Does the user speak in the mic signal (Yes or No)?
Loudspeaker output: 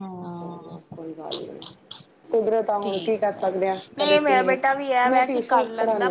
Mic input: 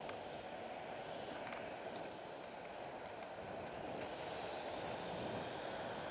No